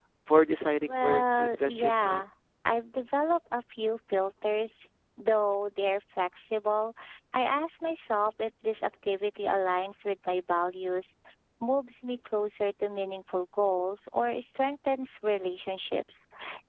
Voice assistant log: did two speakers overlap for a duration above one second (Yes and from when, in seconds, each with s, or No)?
Yes, from 0.9 s